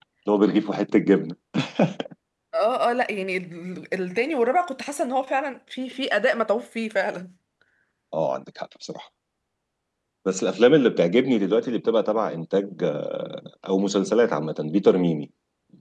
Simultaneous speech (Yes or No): No